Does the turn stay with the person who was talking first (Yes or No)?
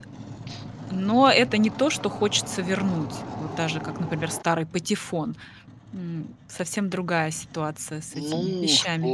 No